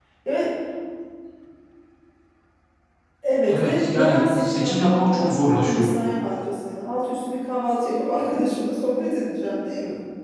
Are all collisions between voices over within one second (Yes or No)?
No